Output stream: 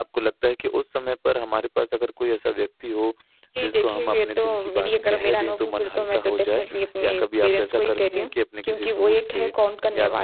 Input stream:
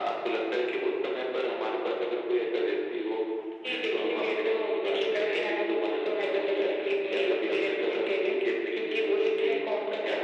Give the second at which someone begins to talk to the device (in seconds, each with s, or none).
none